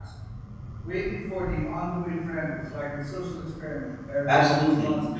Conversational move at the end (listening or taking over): taking over